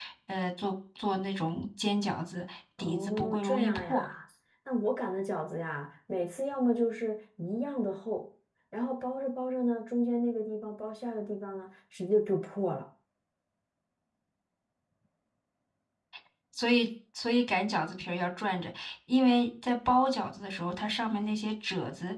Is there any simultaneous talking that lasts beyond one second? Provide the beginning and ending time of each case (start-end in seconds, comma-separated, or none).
2.8-4.1